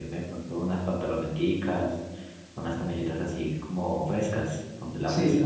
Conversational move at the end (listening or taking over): taking over